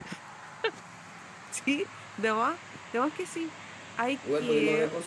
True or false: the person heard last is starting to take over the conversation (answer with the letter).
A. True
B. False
A